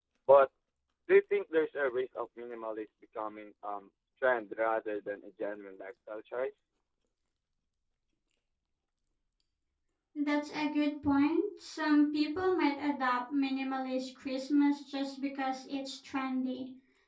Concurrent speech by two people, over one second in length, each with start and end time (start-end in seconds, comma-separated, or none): none